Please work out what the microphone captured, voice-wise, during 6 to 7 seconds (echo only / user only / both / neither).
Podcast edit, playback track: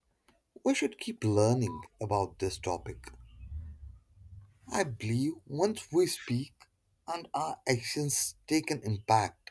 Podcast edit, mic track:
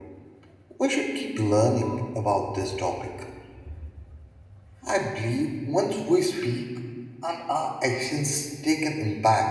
echo only